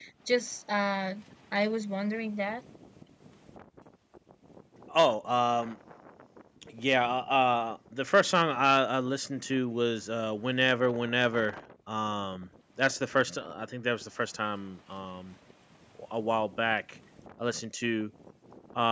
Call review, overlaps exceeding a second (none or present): none